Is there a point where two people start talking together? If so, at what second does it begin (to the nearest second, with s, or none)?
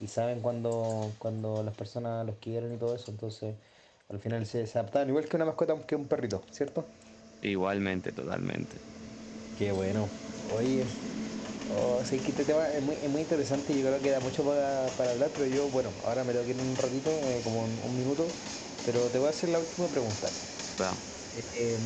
none